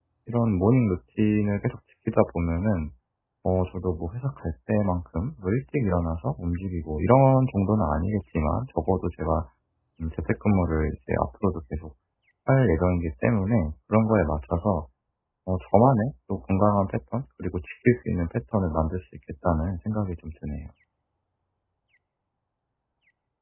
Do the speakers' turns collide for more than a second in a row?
No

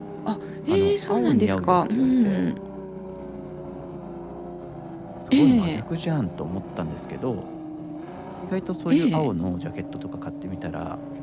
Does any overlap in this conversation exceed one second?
Yes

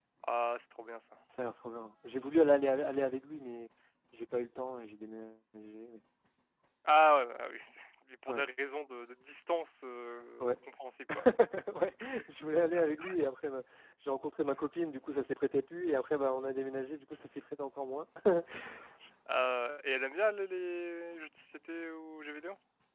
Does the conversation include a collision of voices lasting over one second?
No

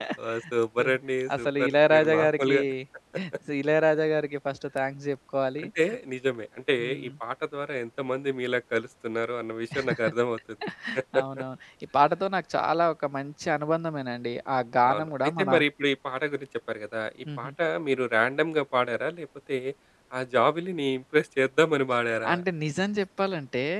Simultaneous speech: Yes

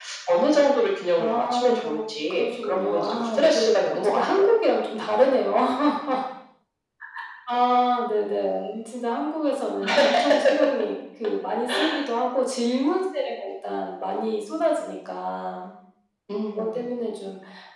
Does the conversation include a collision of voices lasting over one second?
Yes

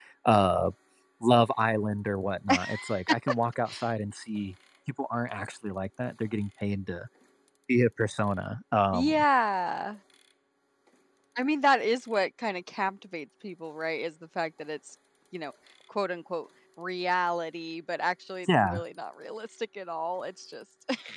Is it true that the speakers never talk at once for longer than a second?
Yes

